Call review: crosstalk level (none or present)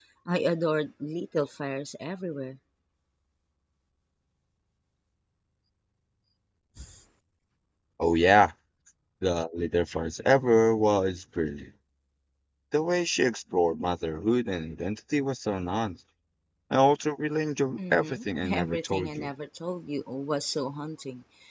present